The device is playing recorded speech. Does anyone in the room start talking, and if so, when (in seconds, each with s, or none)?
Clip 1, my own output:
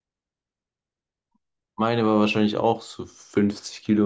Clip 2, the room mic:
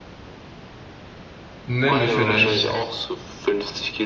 1.7 s